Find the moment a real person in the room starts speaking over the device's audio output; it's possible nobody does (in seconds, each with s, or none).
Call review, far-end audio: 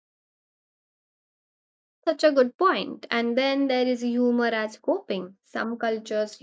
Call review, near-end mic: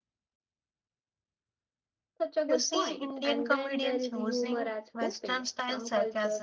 2.5 s